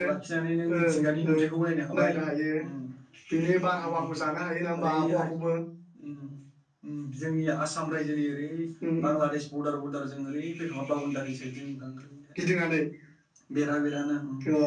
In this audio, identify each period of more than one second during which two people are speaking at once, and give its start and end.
none

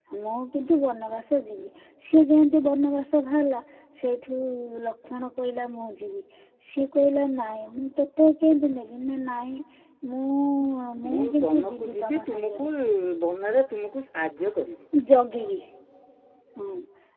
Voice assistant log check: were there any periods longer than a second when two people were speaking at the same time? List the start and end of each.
11.1-12.7

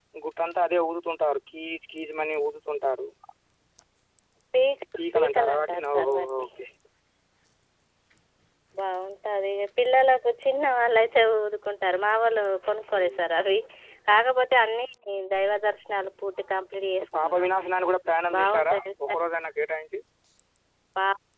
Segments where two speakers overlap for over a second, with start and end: 5.1-6.5

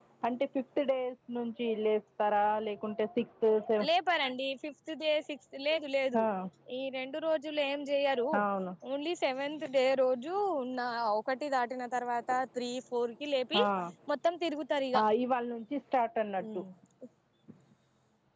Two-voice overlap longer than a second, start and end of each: none

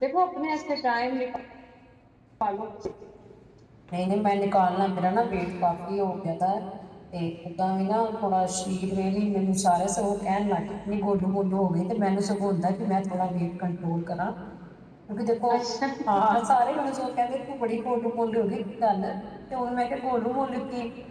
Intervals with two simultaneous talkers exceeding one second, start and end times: none

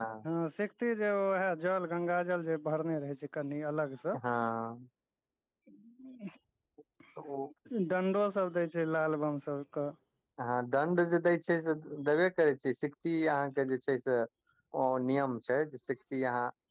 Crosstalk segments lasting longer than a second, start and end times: none

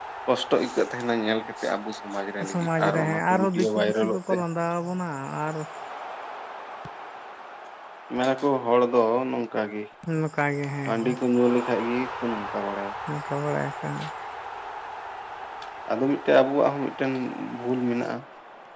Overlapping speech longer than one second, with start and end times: 2.5-4.4

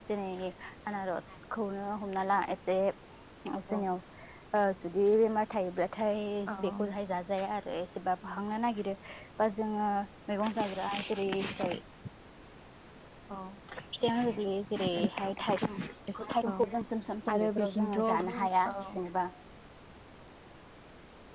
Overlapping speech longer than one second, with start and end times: 17.3-18.8

